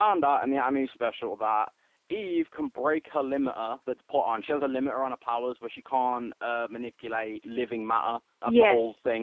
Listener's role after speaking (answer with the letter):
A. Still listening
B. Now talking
A